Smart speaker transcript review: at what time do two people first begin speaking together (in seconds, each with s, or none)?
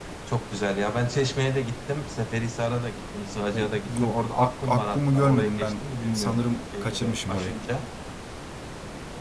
3.5 s